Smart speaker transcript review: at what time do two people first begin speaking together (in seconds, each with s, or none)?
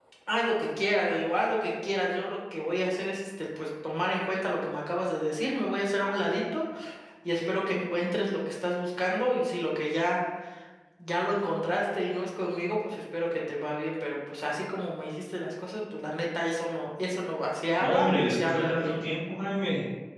17.8 s